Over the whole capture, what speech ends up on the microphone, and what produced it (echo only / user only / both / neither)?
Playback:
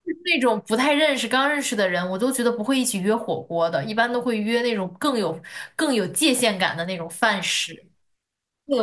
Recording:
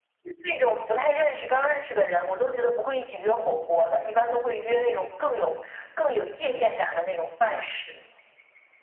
echo only